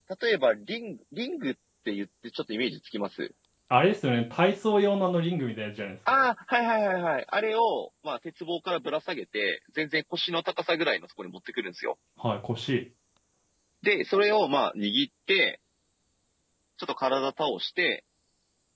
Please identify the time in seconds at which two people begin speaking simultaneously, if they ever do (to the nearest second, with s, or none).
none